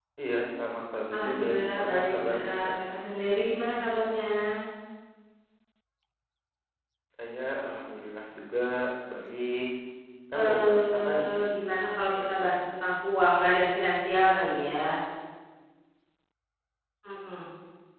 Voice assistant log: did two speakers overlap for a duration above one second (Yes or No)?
Yes